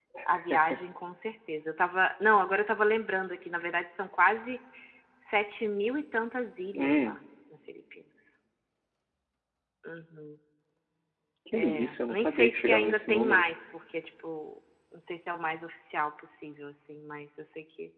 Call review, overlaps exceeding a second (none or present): present